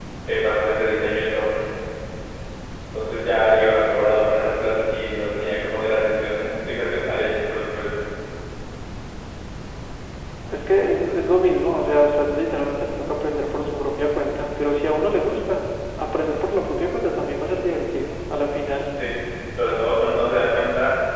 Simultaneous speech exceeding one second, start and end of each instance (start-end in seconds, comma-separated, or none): none